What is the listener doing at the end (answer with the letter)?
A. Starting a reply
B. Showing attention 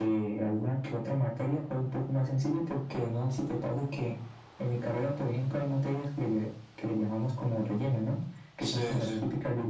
B